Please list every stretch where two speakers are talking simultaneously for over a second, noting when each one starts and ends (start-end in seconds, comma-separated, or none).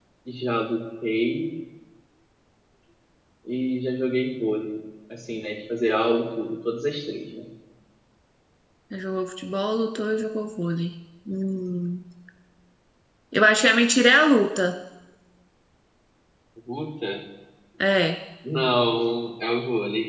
none